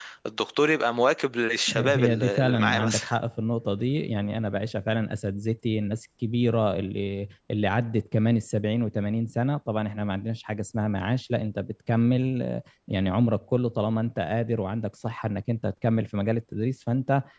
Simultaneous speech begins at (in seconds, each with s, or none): 1.7 s